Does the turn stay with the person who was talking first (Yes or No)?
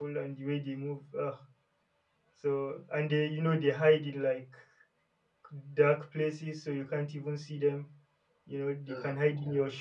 Yes